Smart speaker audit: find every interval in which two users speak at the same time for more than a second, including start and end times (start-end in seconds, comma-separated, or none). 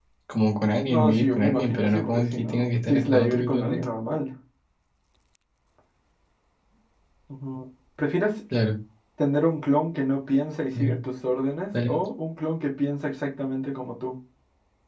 0.9-3.9